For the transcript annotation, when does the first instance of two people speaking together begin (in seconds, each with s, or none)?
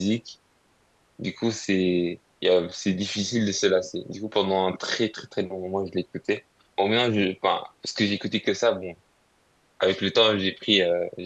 none